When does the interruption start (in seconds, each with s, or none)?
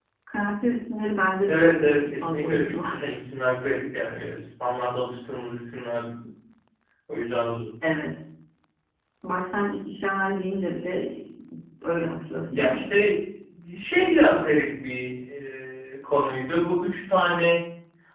1.4 s